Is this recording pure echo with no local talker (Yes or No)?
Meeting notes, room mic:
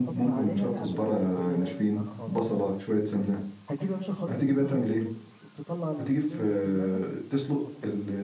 No